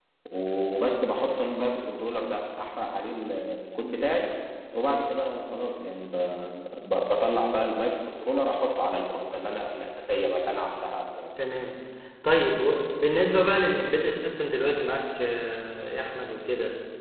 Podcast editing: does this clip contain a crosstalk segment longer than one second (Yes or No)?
No